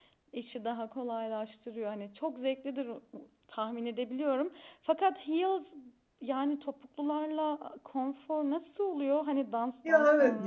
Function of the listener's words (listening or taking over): taking over